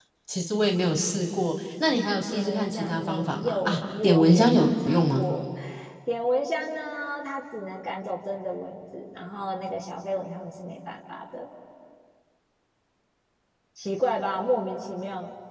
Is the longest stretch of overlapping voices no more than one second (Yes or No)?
No